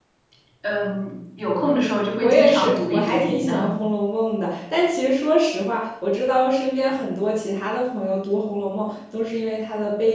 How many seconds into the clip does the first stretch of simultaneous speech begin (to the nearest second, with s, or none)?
2 s